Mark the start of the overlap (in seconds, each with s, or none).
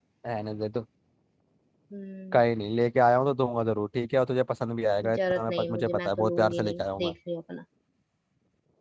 5.0 s